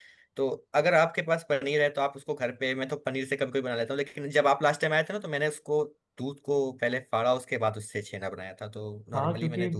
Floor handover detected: Yes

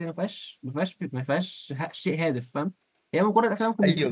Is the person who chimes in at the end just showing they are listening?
No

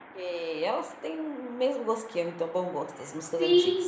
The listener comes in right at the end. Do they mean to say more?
Yes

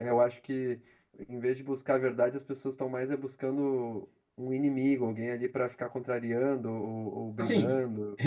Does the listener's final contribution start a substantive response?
Yes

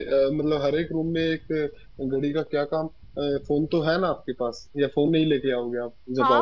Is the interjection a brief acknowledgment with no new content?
No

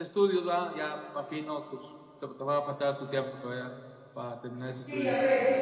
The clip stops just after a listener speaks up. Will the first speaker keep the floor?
No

